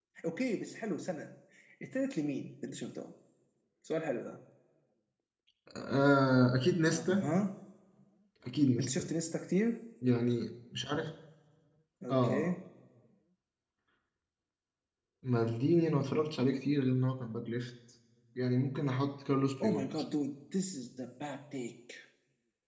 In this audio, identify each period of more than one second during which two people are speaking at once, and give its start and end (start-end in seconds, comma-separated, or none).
none